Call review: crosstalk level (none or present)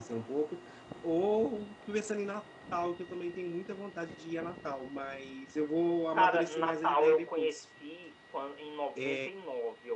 present